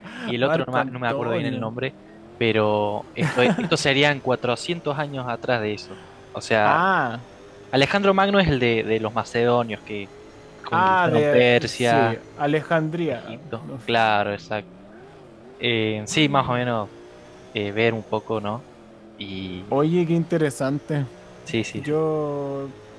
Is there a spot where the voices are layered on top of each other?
Yes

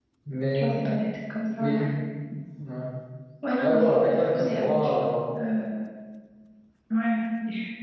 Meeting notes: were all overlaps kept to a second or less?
No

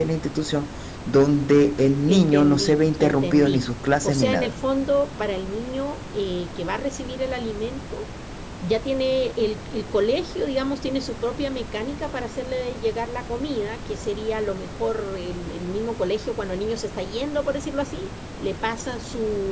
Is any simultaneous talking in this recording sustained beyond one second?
Yes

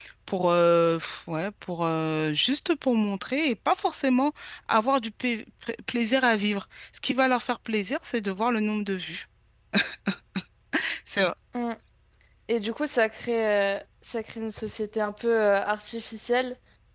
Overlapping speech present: No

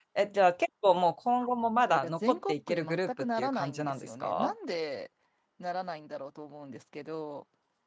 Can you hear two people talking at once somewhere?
Yes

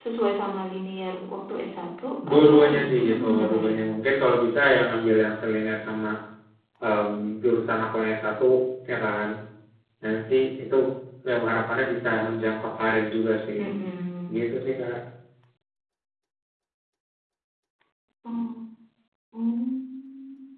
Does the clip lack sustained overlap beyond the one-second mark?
No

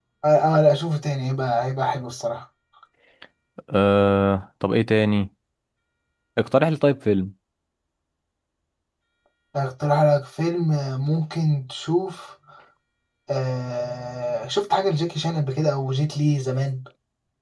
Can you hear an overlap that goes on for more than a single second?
No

